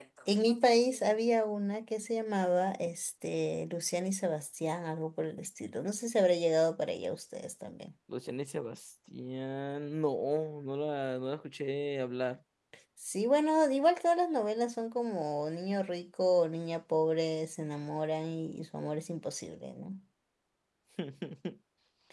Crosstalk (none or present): none